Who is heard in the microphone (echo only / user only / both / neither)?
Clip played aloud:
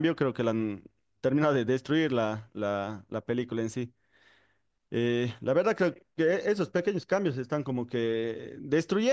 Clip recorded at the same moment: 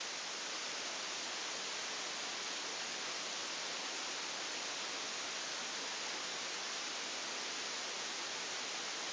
neither